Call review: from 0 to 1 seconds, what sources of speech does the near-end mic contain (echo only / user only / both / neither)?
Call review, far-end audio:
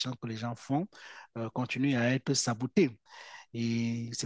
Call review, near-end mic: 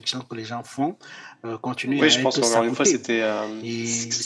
echo only